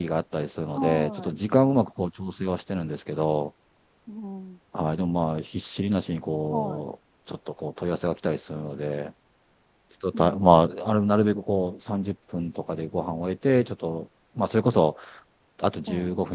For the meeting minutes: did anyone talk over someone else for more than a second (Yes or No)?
No